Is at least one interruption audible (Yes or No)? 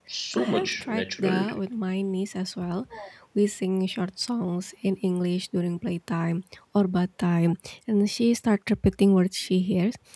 Yes